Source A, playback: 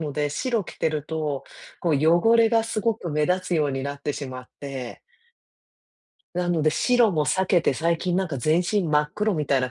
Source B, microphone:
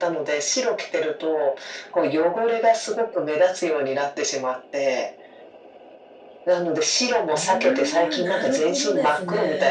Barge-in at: 7.3 s

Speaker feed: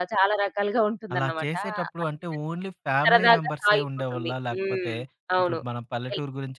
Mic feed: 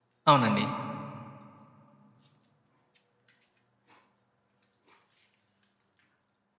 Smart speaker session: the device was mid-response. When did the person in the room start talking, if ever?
0.3 s

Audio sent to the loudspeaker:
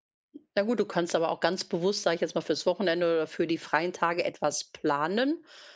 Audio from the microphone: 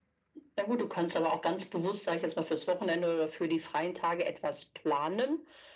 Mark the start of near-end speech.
none

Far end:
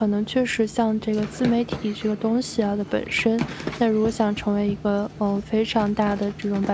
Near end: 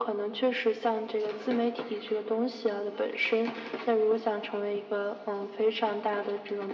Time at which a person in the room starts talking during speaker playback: none

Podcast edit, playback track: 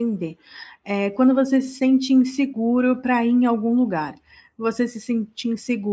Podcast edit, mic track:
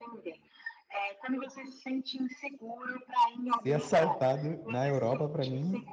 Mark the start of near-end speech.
3.5 s

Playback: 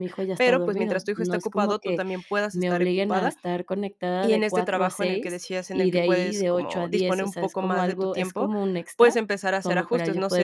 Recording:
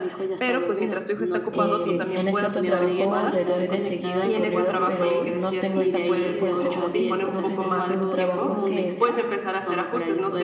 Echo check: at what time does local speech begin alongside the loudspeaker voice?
1.5 s

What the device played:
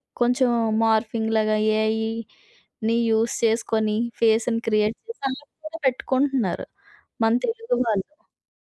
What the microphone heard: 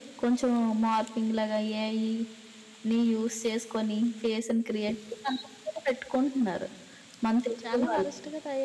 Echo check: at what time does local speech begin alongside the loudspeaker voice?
7.6 s

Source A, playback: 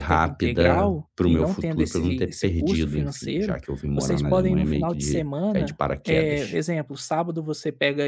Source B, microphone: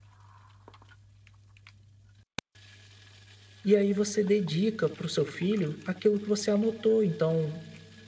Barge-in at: 3.6 s

